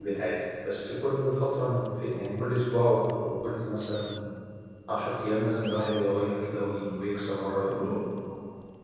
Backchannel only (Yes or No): No